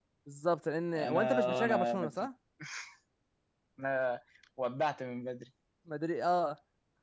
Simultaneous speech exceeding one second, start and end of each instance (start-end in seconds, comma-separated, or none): 1.0-2.3